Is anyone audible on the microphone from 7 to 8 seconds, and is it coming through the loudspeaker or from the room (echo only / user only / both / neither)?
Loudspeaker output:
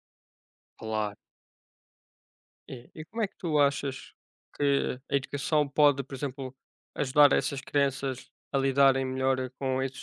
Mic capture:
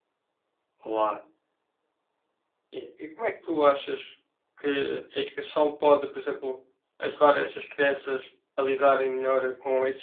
echo only